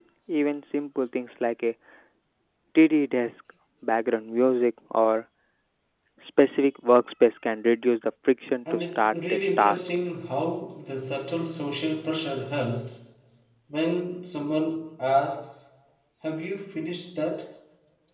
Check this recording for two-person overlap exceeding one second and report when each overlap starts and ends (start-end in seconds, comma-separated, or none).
8.7-9.9